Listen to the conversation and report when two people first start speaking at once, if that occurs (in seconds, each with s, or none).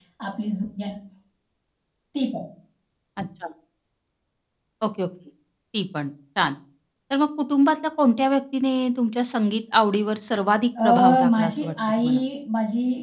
10.8 s